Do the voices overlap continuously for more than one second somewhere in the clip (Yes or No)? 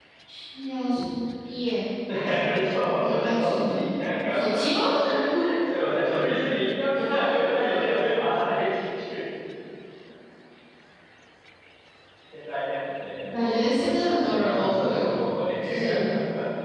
Yes